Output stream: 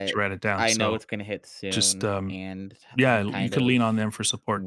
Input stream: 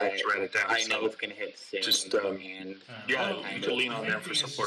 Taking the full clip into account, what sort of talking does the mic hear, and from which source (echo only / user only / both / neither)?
both